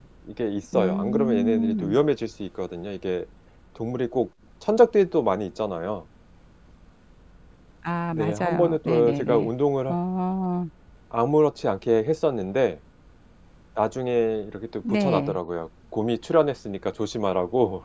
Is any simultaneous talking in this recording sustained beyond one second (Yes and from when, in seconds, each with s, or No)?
Yes, from 0.7 s